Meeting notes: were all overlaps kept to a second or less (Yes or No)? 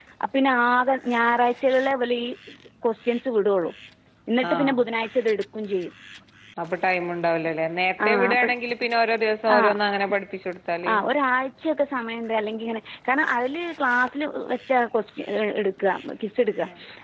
Yes